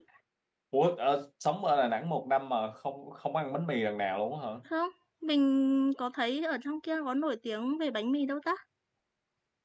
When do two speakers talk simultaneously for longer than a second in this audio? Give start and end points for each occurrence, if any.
none

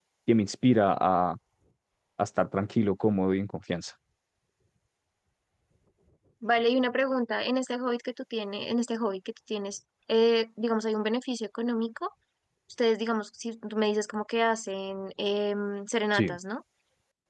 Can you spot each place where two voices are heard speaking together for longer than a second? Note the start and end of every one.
none

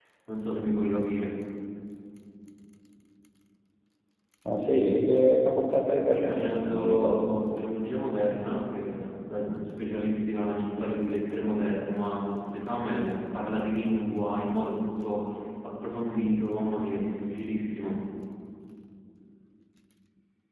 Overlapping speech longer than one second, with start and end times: 6.0-7.4

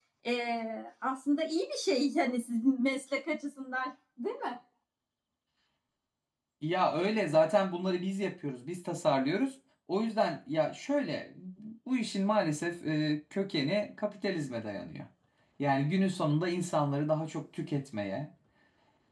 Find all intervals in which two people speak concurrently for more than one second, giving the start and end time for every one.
none

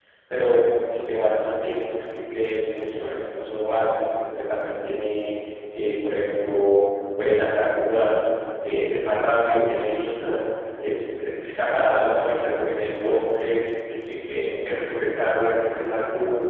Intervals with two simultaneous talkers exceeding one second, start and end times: none

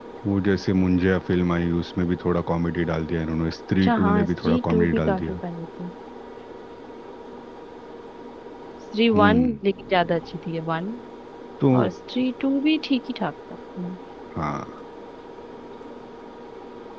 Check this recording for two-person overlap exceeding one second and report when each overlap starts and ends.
3.8-5.4

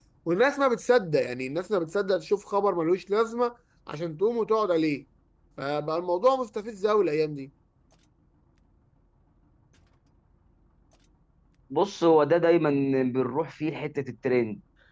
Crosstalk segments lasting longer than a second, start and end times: none

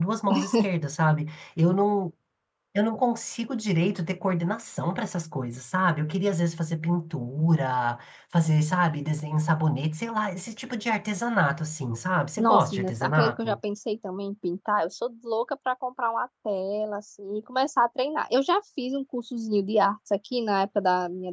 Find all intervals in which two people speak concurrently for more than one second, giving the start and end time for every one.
12.4-13.6

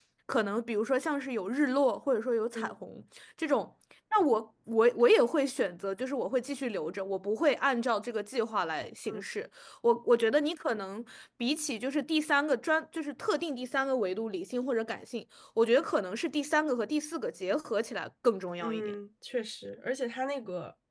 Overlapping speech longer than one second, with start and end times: none

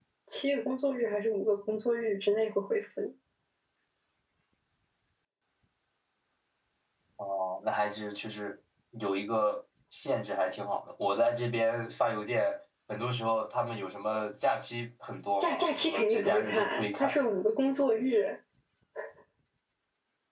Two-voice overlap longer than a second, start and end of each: 15.4-17.2

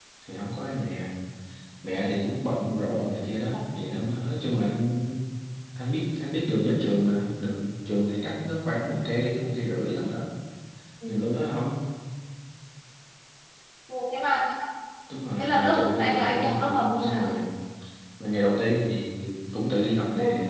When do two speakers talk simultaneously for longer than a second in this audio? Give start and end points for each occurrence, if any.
15.4-17.2

